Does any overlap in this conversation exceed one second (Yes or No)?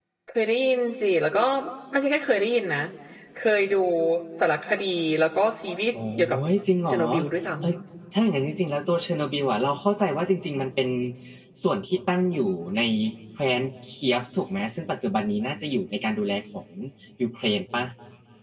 No